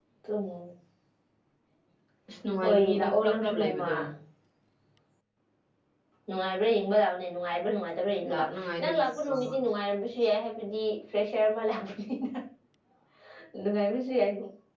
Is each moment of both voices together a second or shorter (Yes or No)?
No